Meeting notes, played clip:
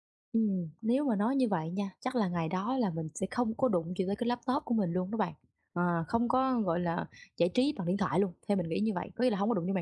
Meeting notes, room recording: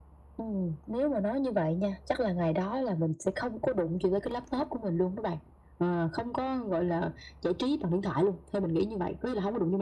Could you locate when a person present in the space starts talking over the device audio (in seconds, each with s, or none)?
none